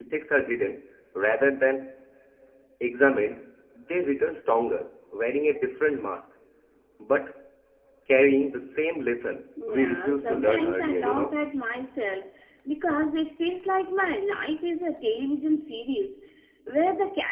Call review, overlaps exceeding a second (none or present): present